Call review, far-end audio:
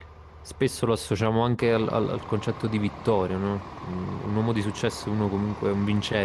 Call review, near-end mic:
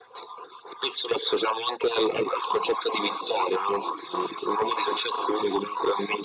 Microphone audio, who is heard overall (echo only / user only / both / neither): echo only